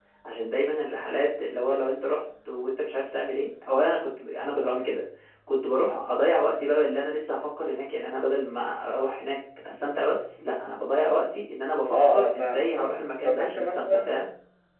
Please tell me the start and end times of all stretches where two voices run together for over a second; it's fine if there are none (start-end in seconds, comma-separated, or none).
11.9-14.1